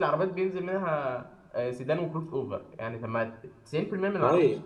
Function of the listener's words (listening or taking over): taking over